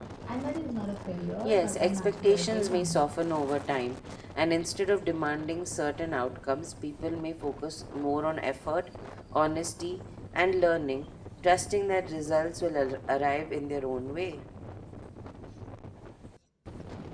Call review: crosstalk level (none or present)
present